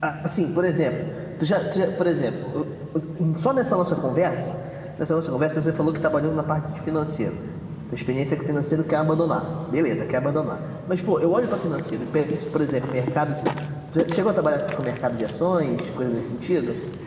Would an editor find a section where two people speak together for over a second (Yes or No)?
No